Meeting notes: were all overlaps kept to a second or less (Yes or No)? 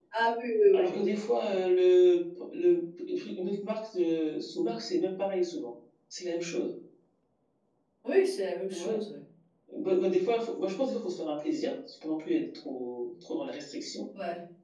Yes